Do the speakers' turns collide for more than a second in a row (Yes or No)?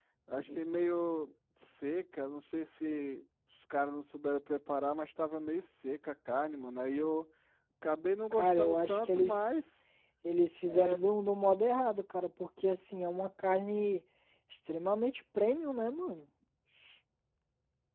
Yes